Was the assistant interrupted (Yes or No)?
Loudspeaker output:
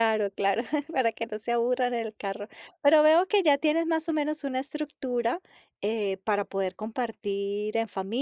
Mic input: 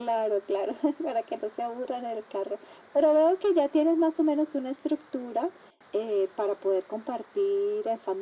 No